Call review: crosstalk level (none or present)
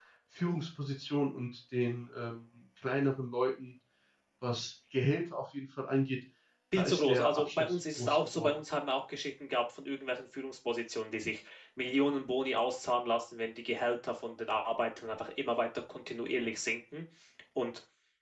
present